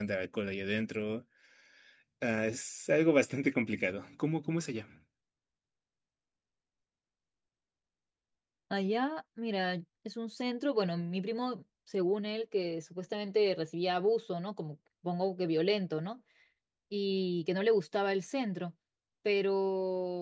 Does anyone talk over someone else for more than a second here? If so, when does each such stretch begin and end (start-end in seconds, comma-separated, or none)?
none